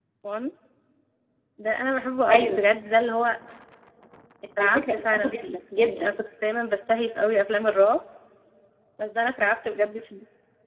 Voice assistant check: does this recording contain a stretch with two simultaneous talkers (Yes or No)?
Yes